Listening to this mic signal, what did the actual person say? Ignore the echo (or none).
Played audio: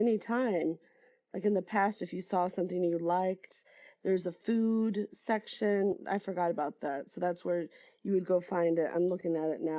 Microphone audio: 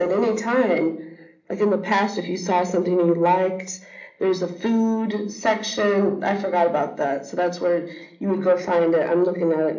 none